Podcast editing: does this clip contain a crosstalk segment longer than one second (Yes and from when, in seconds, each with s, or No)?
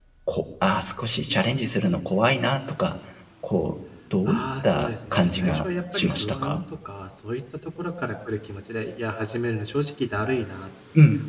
Yes, from 4.3 s